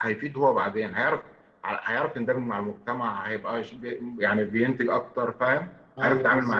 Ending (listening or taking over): taking over